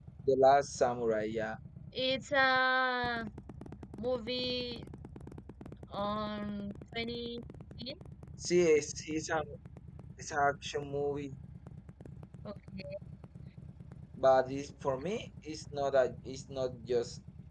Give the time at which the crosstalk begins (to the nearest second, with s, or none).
none